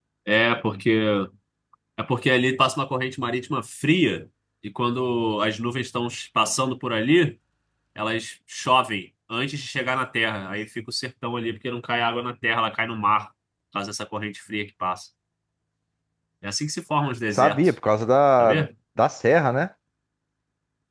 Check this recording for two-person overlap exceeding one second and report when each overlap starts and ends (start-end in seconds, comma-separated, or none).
none